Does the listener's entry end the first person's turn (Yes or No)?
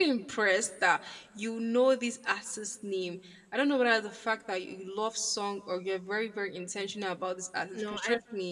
No